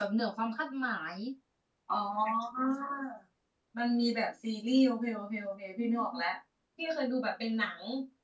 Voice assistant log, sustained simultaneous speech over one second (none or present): none